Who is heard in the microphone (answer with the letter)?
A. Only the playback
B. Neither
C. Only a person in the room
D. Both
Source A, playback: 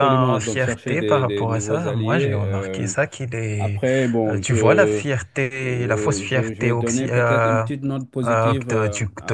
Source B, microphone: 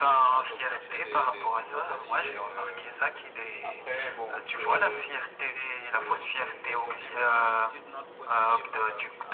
A